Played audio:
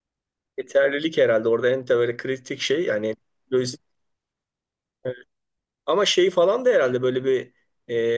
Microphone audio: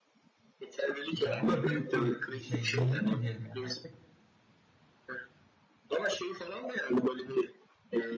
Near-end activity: present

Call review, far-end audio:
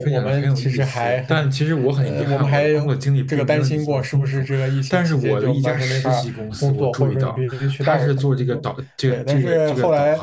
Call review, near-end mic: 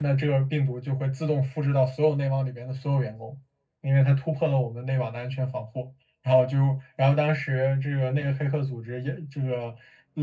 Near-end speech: present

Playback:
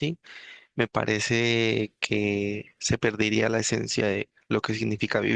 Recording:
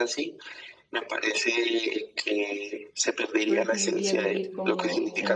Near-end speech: present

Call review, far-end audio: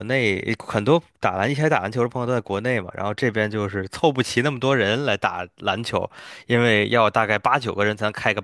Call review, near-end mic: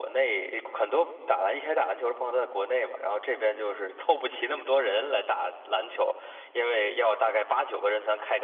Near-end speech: none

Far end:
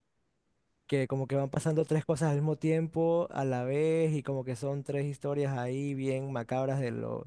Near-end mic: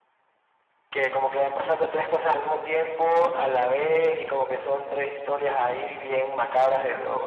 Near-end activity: none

